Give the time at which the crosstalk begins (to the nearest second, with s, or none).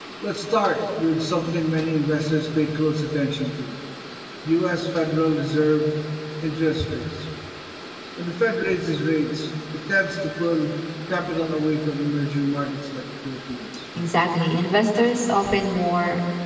none